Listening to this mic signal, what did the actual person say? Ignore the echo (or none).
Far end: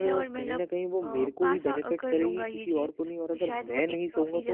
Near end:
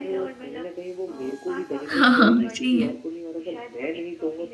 हाँ, हाँ, हाँ, सही है।